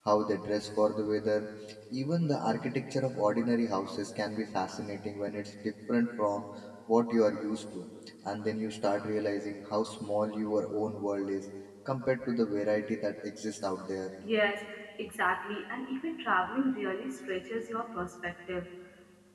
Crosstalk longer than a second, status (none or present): none